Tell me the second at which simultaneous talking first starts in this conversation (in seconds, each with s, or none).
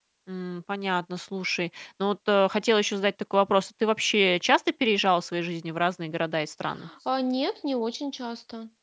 none